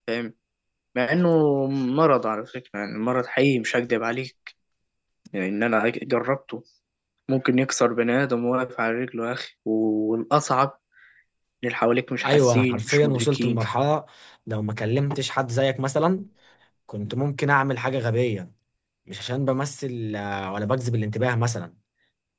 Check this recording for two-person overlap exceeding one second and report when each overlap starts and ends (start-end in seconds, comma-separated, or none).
12.2-13.6